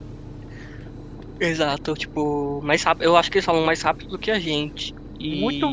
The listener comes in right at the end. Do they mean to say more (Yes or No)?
Yes